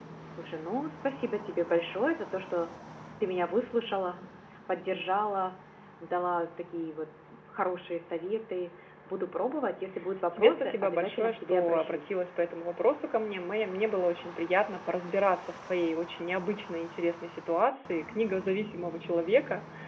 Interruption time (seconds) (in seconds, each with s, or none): 10.3 s